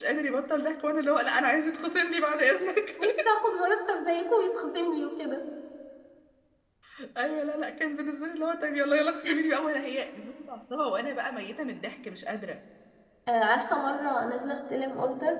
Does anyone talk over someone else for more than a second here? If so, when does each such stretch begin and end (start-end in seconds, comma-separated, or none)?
none